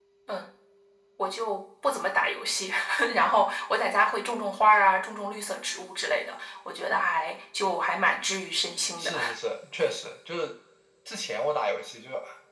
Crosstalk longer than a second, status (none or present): none